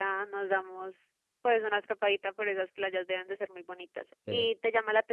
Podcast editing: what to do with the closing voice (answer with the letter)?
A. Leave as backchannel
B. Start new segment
A